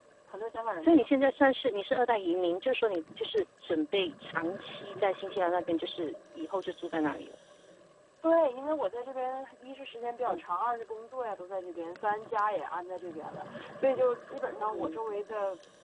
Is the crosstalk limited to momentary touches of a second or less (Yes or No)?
Yes